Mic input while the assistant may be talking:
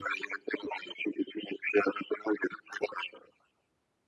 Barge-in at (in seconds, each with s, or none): none